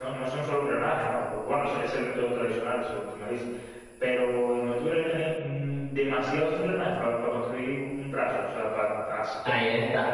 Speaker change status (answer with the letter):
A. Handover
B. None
A